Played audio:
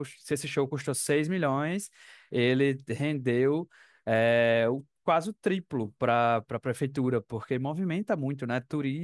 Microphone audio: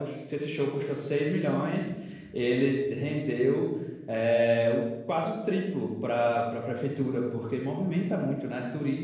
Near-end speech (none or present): none